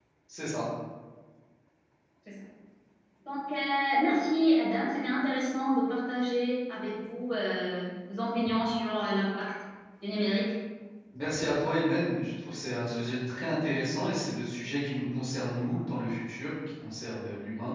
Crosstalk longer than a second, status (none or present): none